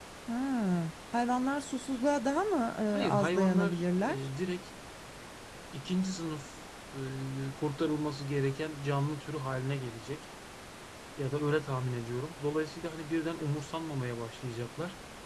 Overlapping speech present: Yes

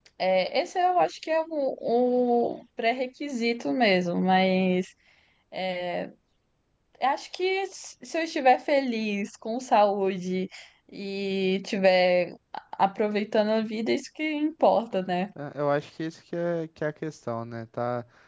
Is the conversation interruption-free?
Yes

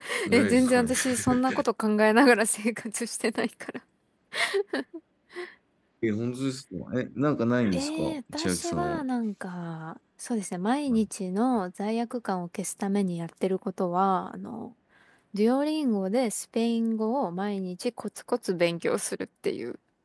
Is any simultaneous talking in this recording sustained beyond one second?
Yes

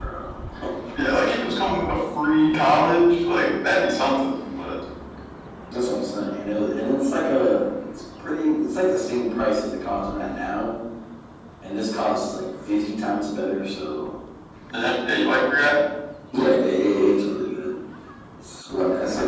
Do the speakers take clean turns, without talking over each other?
Yes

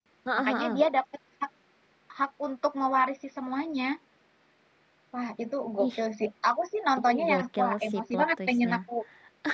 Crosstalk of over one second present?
Yes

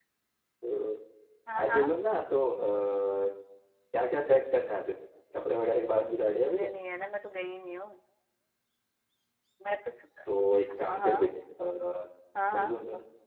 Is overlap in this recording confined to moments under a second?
Yes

